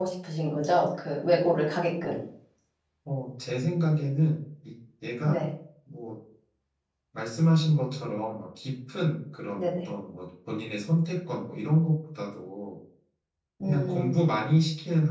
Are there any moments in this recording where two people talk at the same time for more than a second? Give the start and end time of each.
none

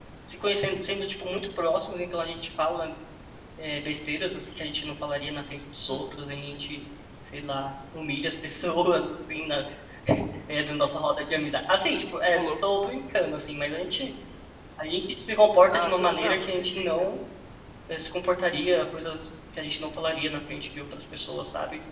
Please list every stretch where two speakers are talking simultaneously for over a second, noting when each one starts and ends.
15.7-17.1

